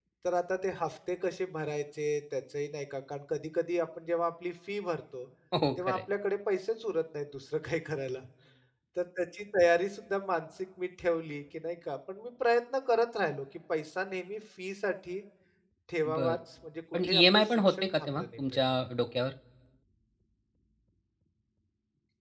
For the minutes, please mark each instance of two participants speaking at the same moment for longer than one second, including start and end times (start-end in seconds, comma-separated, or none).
17.0-18.6